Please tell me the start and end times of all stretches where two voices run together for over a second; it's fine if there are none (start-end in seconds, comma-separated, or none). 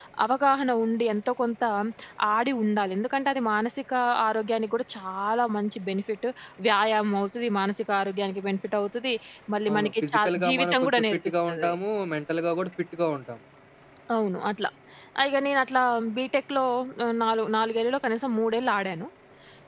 9.7-11.8